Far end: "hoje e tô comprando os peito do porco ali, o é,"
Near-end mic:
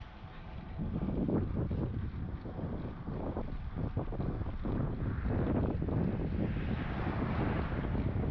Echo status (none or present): none